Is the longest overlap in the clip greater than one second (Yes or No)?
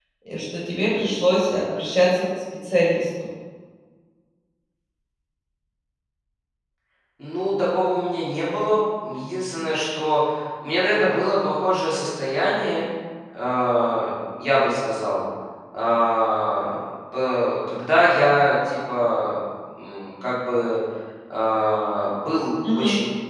No